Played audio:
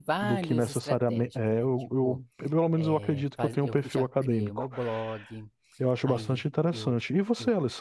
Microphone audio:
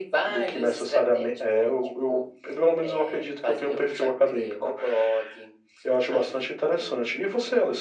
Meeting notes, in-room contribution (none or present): none